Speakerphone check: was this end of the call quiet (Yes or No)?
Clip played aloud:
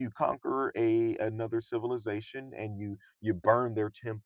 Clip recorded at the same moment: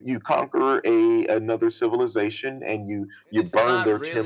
No